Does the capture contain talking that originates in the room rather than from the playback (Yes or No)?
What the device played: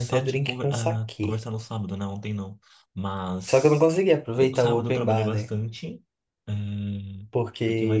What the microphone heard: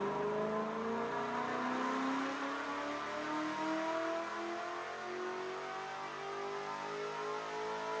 No